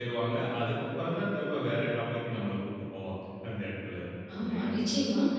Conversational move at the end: taking over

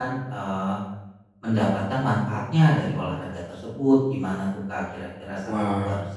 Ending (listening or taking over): taking over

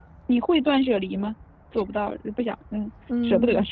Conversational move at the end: taking over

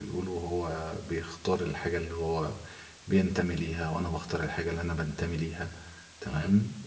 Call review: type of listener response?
listening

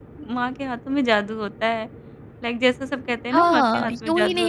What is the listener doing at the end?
taking over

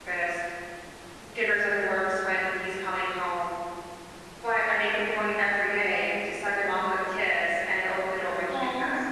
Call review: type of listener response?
taking over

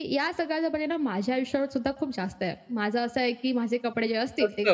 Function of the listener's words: taking over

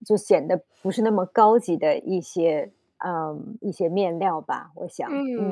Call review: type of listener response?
taking over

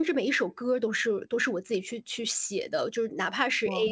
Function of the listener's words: listening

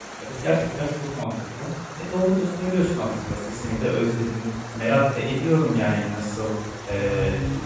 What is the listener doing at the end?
listening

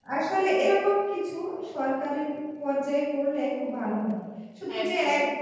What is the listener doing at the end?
listening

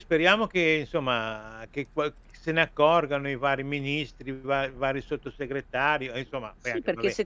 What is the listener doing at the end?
taking over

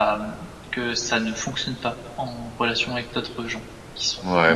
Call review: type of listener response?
taking over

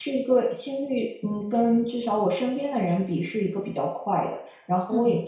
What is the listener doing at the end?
listening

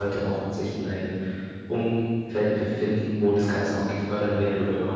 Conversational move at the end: listening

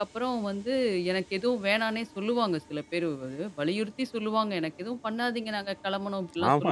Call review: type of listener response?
taking over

